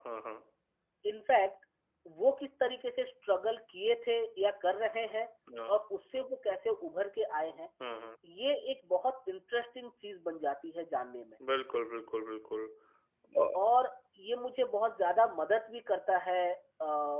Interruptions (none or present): none